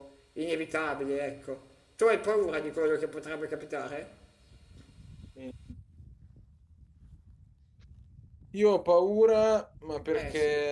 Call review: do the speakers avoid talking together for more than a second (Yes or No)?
Yes